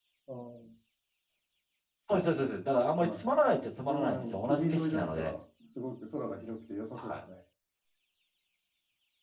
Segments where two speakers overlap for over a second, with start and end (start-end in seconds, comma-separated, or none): 3.9-5.3